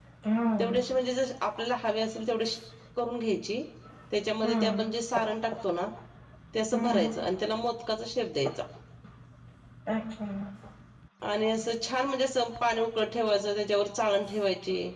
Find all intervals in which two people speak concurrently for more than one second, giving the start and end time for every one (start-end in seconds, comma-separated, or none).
none